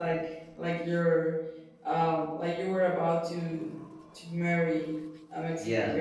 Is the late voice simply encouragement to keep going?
No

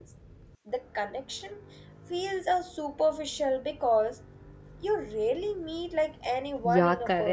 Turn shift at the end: Yes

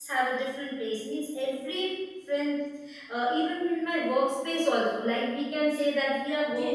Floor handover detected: Yes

